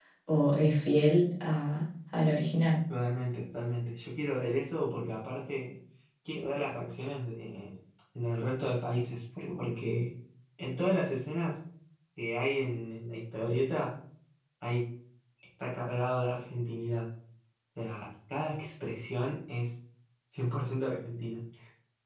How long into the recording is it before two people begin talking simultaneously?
none

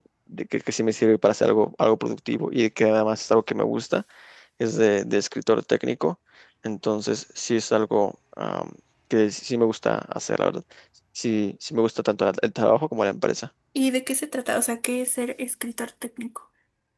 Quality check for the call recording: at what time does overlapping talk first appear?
none

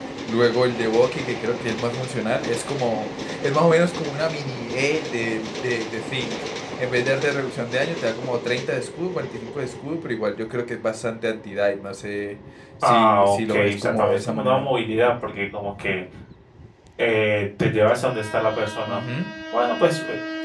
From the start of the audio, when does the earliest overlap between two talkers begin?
13 s

